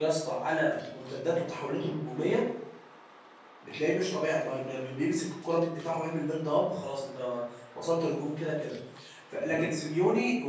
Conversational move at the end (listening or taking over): listening